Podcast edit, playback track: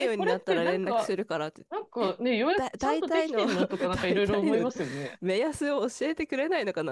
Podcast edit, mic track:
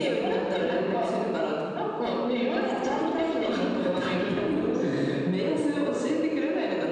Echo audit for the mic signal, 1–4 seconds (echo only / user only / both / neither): echo only